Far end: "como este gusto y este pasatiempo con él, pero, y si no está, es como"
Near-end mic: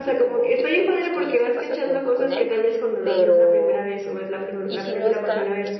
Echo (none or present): present